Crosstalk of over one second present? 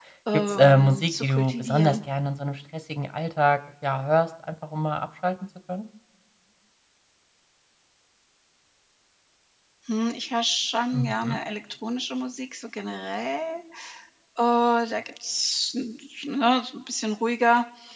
Yes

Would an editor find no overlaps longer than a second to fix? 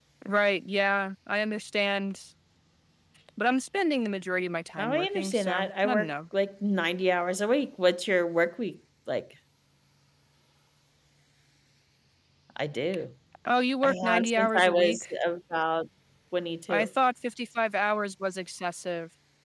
No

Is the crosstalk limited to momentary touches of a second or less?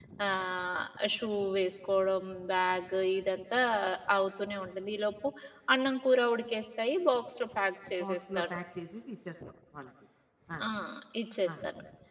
Yes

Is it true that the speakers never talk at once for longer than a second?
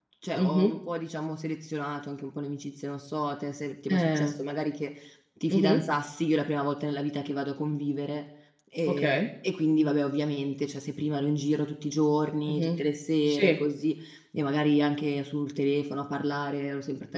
Yes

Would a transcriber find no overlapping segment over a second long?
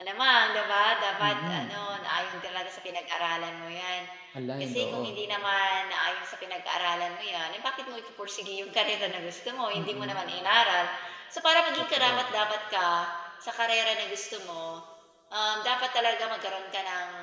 Yes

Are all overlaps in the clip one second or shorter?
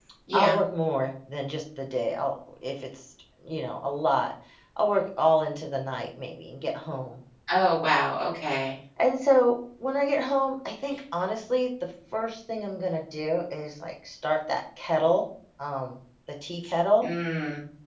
Yes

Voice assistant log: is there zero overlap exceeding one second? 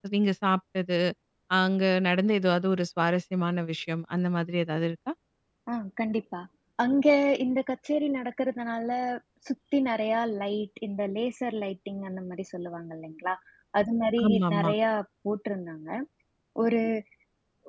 Yes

